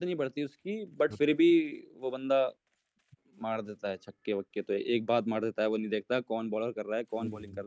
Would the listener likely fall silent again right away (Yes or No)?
No